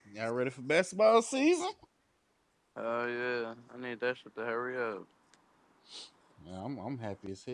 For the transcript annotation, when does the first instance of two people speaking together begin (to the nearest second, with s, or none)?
none